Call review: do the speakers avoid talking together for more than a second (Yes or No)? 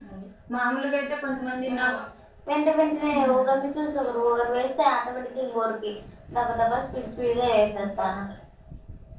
Yes